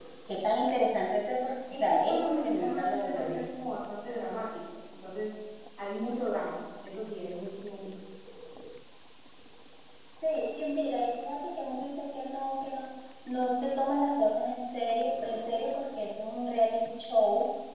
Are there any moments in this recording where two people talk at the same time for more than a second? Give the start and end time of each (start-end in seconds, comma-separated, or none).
1.7-3.4